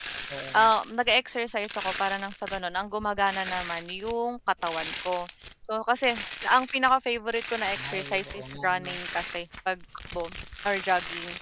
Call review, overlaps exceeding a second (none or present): present